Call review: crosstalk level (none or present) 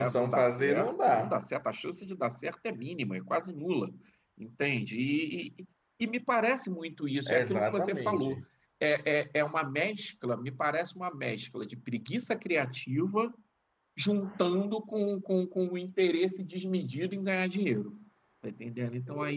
present